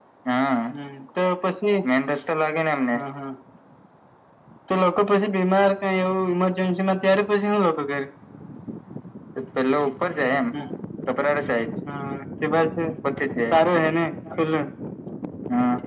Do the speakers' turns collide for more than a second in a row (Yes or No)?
No